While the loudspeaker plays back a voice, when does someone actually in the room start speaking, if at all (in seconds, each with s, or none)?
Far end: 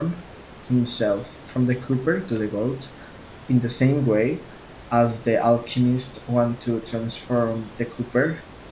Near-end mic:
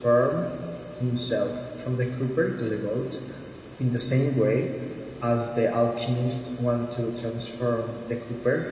none